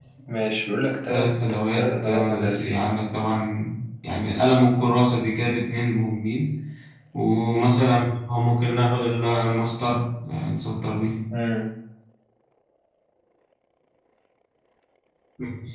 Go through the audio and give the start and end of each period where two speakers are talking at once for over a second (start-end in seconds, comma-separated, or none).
1.1-2.8